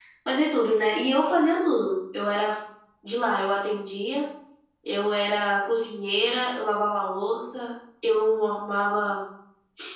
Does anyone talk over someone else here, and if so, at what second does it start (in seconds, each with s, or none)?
none